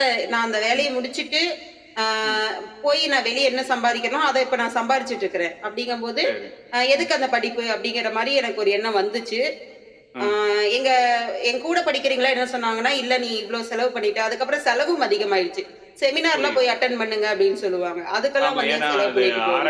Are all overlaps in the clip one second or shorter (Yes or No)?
No